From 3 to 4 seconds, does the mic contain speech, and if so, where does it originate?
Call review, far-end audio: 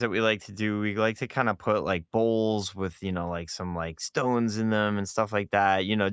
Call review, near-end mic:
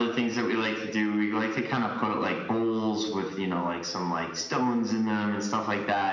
echo only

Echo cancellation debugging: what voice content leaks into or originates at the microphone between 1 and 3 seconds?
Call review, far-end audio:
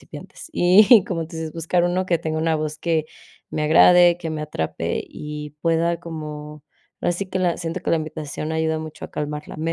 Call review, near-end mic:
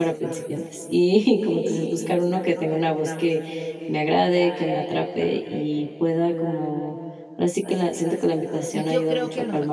echo only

